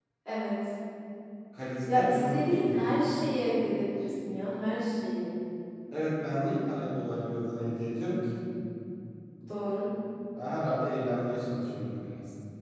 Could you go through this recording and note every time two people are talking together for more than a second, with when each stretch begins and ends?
1.9-3.2

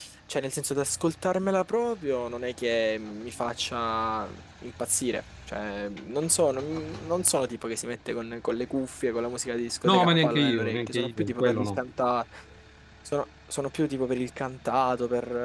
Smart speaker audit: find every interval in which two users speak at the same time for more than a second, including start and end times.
9.8-11.8

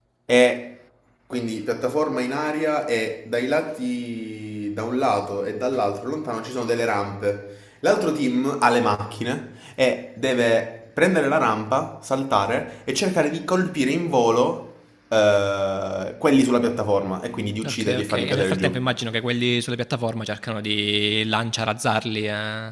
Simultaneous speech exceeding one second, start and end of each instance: 17.7-18.9

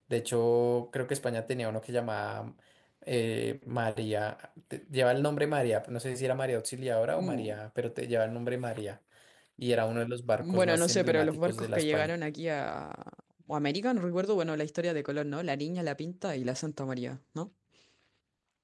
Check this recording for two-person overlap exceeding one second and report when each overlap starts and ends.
10.4-12.1

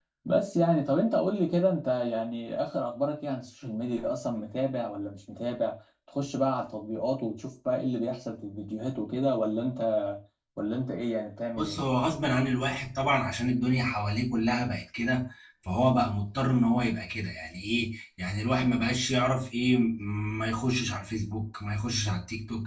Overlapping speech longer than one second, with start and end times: none

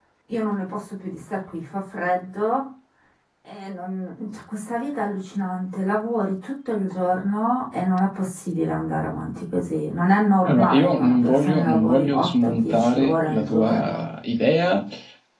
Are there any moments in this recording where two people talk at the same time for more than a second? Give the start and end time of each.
10.5-14.1

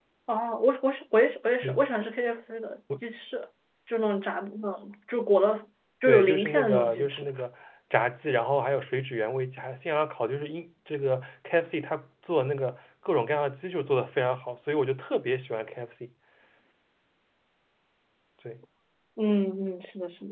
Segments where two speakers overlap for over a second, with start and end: 6.0-7.2

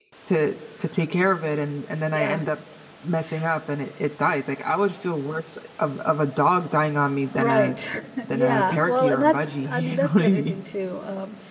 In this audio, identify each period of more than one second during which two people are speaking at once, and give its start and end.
8.3-10.6

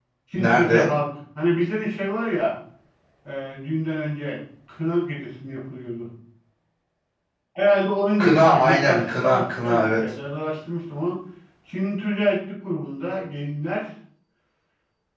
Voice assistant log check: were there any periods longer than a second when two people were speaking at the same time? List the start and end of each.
8.2-10.0

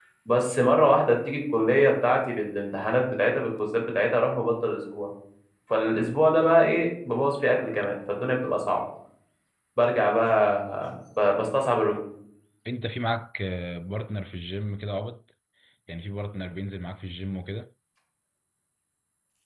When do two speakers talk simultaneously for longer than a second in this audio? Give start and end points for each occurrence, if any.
none

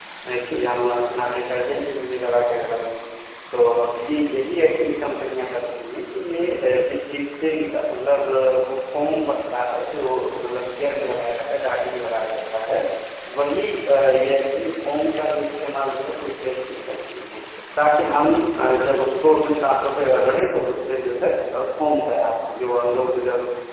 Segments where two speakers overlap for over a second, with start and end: none

